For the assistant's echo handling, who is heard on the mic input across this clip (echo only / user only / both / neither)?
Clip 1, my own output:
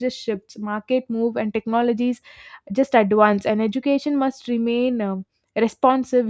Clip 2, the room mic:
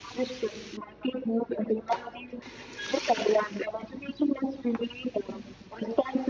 echo only